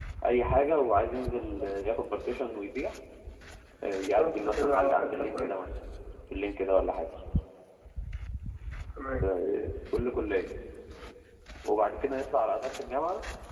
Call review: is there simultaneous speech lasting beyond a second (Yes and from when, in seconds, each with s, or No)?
Yes, from 4.0 s